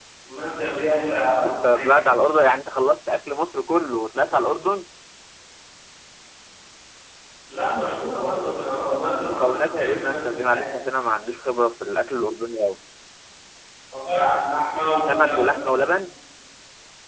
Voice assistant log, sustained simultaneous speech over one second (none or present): present